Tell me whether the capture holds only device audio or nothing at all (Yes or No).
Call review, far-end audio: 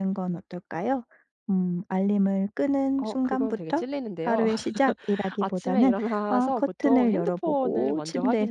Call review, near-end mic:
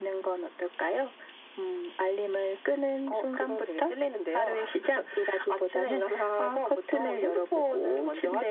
Yes